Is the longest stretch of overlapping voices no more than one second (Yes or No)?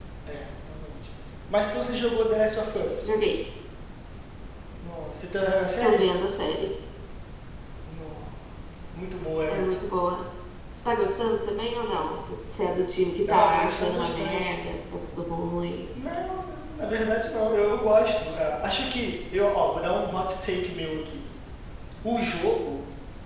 No